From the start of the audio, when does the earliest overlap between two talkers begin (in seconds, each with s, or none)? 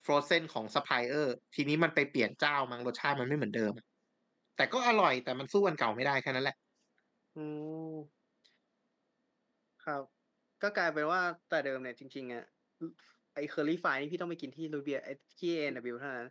none